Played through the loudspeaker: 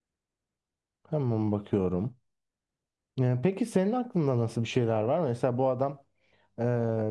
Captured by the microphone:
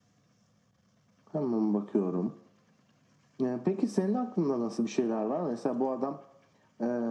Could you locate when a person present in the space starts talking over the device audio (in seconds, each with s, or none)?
none